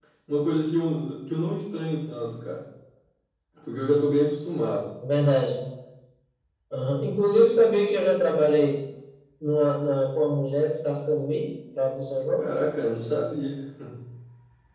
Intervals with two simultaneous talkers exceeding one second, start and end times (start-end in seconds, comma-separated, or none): none